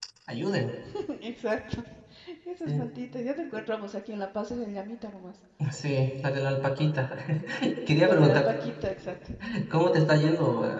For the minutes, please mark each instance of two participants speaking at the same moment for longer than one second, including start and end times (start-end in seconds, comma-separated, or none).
none